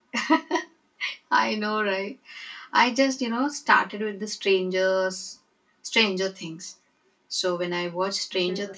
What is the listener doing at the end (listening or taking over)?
listening